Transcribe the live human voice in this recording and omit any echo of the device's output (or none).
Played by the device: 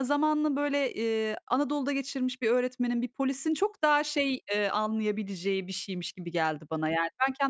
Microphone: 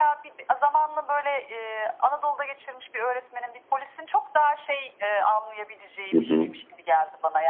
Hı hı.